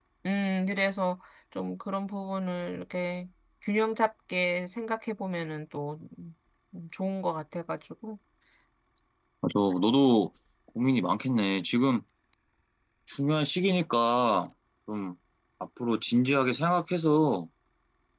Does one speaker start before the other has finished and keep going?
No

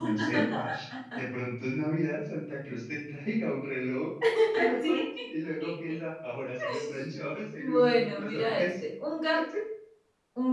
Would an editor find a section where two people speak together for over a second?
Yes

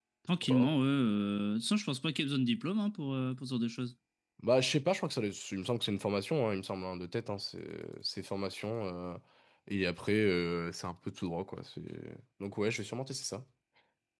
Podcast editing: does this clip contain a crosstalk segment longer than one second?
No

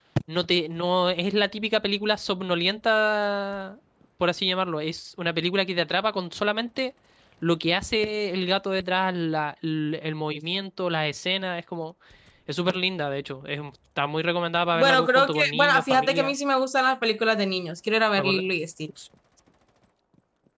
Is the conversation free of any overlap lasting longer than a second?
No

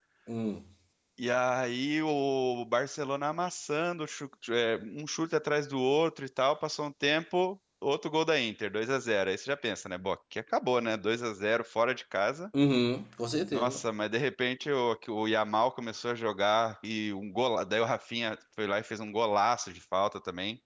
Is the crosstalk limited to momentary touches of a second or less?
Yes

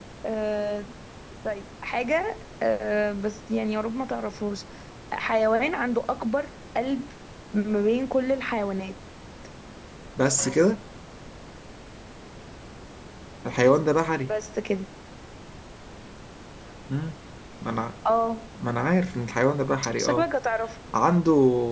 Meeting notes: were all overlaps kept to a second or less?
Yes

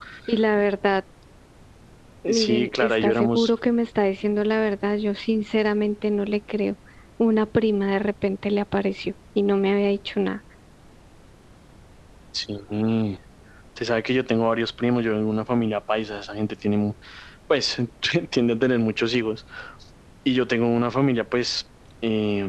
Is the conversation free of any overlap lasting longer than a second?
No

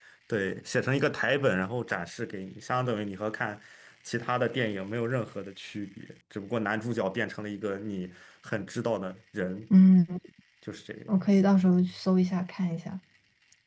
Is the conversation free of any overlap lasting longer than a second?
Yes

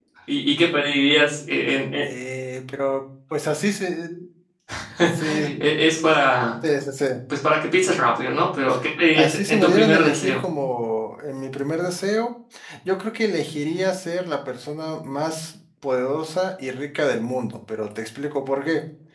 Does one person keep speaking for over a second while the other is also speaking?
Yes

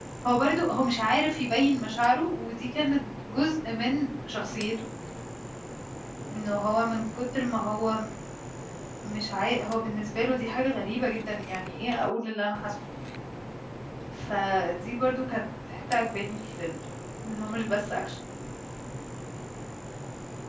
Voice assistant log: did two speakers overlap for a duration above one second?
No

